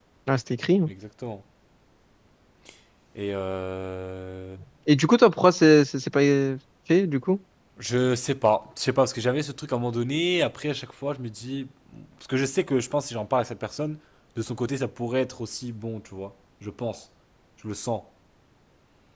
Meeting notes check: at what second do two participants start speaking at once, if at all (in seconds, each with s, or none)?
none